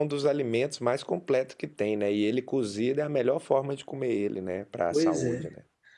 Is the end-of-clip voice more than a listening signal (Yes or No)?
Yes